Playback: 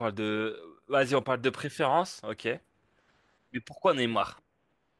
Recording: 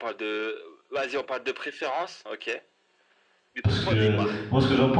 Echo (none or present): present